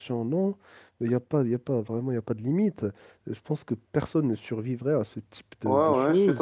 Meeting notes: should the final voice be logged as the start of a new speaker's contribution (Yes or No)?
Yes